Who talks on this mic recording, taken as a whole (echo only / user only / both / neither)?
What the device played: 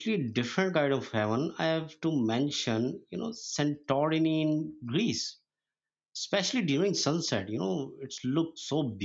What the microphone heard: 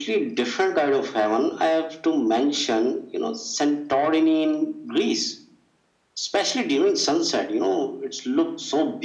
echo only